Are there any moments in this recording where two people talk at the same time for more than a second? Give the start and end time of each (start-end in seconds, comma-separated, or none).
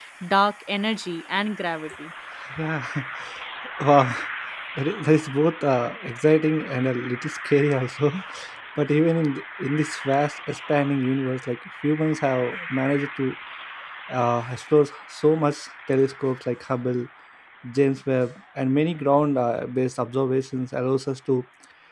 none